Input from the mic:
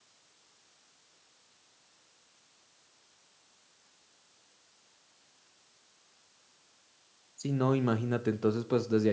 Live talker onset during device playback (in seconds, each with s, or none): 7.3 s